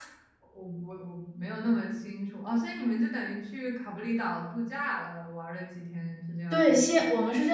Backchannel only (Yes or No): No